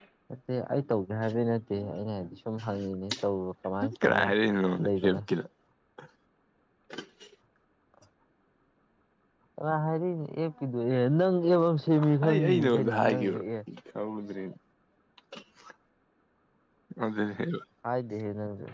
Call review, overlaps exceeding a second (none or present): present